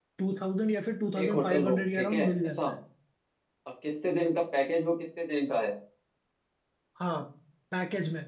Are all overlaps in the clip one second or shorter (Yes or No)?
No